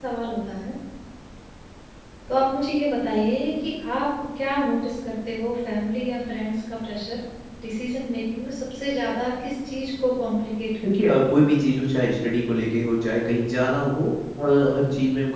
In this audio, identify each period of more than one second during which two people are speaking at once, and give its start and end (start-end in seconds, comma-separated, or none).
none